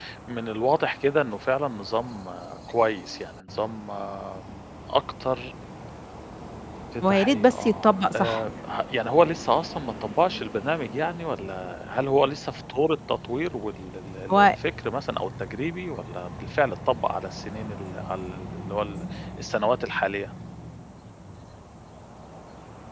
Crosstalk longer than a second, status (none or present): present